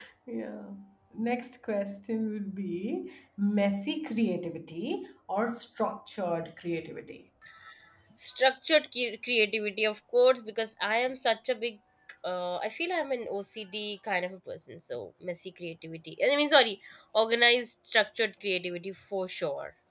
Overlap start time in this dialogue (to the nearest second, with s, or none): none